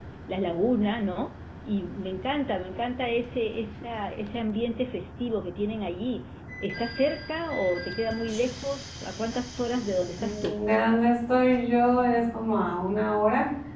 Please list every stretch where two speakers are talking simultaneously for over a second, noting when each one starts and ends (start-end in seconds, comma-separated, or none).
none